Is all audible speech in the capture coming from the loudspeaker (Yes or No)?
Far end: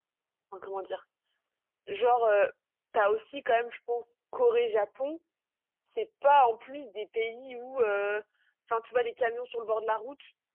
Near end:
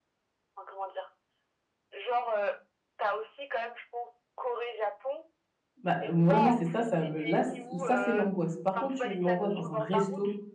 No